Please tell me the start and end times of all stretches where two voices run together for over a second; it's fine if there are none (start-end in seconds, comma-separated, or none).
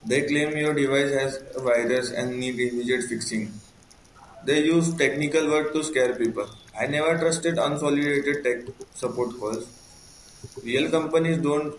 none